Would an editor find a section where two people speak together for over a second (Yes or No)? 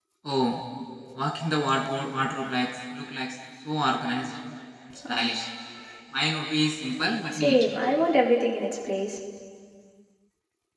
No